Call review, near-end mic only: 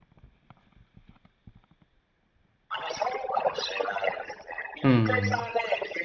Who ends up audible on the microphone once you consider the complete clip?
both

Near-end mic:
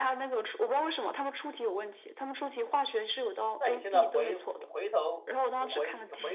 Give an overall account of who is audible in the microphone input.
both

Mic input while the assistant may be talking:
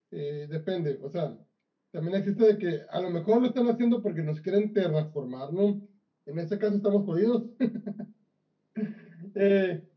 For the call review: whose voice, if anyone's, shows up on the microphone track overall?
echo only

